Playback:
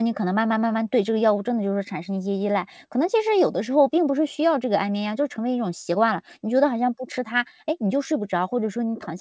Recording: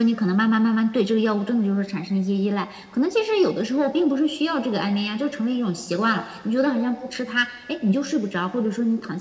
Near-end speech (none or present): none